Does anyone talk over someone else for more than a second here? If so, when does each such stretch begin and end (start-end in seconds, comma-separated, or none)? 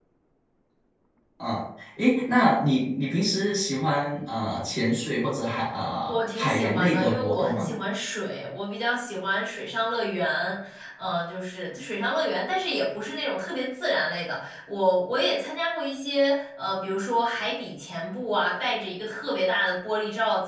6.1-7.7